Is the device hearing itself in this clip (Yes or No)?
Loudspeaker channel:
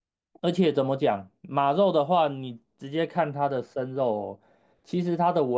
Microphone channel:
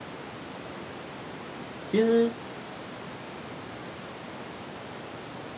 No